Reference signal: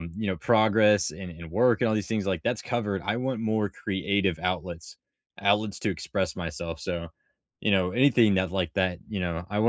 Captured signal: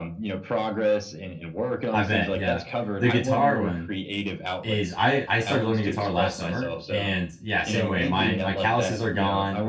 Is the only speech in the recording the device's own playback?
No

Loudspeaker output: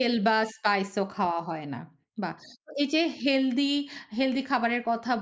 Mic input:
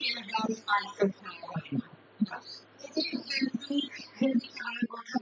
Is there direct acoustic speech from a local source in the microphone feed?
No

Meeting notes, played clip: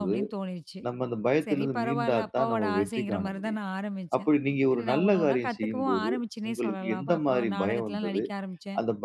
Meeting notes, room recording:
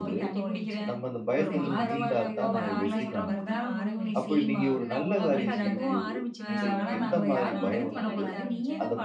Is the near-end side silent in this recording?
No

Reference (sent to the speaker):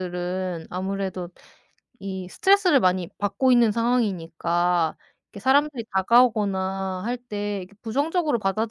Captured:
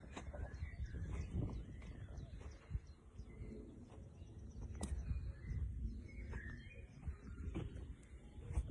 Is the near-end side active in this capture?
No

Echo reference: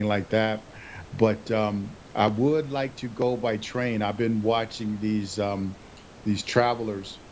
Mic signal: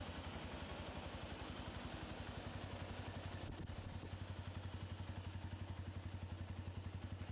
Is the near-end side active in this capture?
No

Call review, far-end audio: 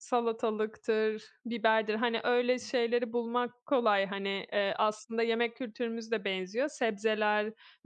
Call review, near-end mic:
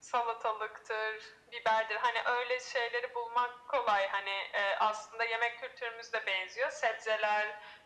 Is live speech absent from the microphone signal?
Yes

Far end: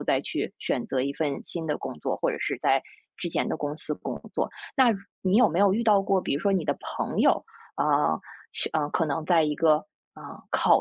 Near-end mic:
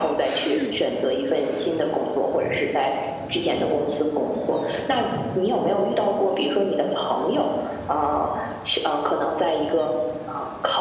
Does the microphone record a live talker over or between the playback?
Yes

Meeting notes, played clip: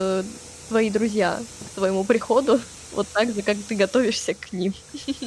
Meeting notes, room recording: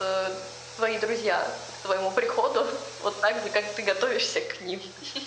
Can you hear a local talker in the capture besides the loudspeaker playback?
No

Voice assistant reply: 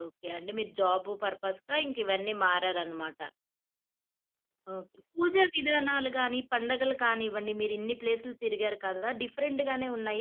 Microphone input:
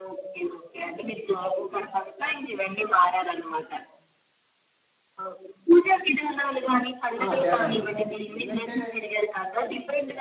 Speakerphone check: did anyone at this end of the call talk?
Yes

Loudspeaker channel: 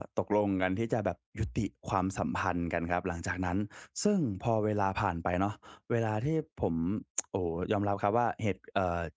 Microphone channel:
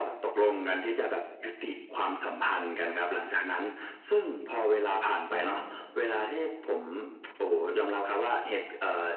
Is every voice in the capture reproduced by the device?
No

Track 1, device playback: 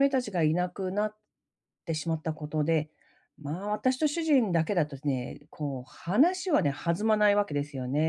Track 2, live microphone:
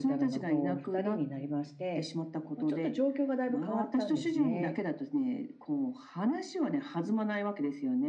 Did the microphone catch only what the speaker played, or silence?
No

